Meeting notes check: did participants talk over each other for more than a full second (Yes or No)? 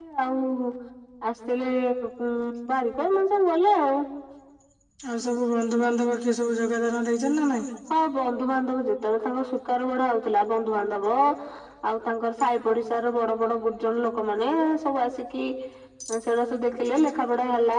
No